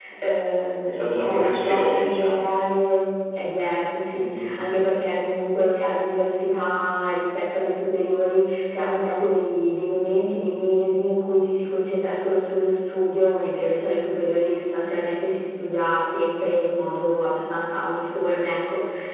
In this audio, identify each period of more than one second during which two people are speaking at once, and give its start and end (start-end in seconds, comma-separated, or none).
0.9-2.4